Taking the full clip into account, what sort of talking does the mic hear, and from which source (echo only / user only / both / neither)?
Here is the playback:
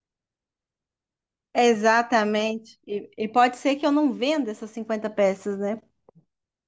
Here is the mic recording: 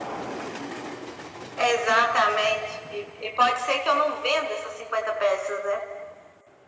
echo only